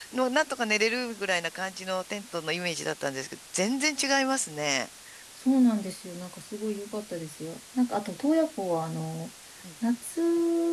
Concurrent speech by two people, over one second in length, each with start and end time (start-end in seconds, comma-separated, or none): none